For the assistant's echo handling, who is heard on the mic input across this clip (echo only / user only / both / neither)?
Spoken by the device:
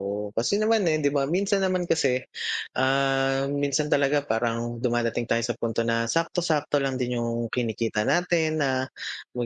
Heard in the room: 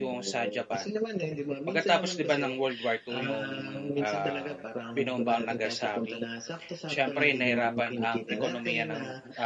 both